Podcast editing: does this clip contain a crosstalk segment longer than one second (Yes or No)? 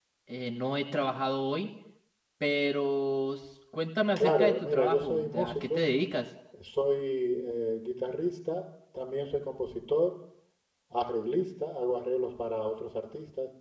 Yes